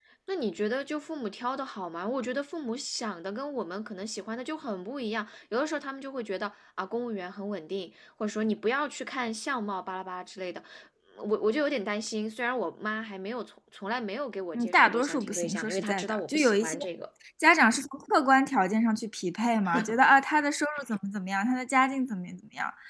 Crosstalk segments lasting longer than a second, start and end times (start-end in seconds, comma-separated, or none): 14.5-16.8